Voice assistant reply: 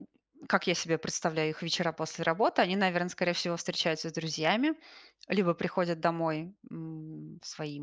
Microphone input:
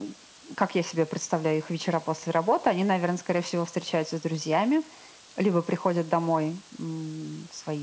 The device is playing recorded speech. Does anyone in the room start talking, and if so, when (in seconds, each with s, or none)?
none